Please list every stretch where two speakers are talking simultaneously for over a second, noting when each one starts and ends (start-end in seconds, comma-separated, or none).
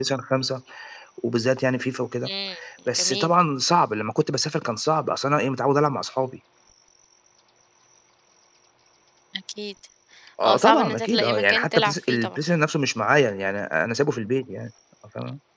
10.4-12.4